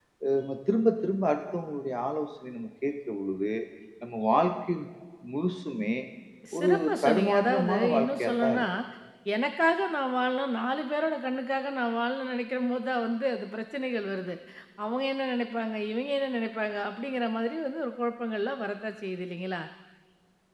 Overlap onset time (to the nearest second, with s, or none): 7 s